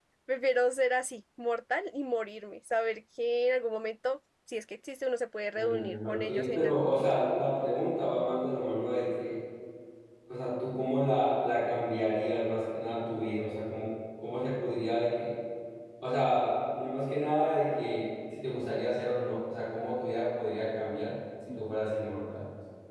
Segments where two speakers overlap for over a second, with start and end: 5.5-7.1

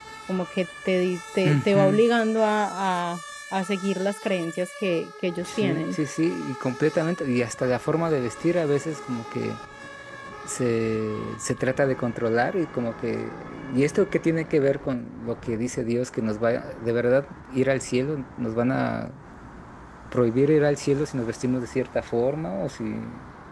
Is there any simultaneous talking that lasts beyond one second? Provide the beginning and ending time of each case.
none

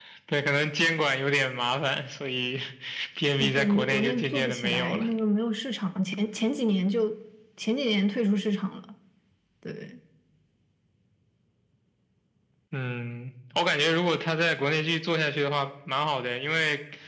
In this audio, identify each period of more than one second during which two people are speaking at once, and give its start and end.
3.4-5.0

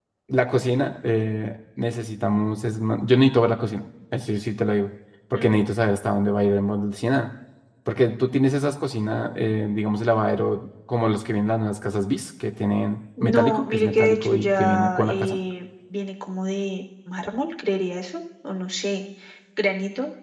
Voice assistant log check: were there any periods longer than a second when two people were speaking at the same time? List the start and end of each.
13.2-15.4

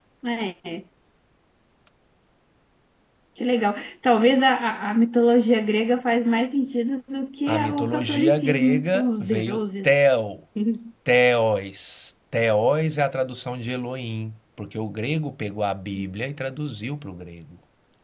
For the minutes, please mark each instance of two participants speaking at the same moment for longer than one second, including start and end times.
7.5-9.9

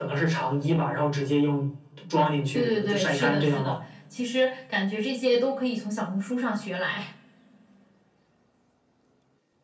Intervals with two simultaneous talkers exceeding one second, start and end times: 2.5-3.8

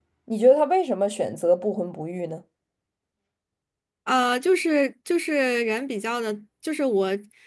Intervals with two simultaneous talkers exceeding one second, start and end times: none

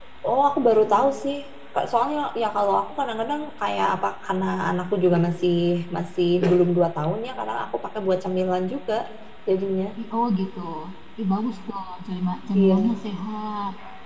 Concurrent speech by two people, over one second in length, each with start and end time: none

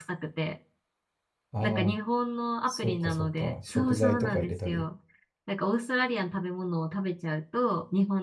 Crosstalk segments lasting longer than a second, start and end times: 2.7-4.8

